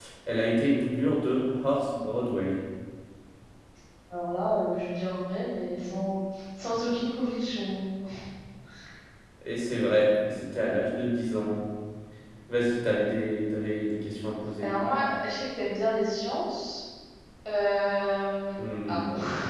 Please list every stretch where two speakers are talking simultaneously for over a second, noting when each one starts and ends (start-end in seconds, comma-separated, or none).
none